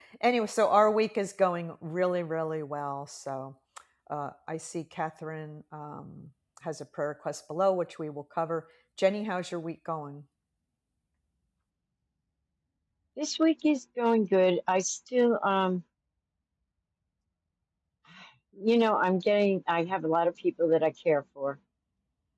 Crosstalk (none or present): none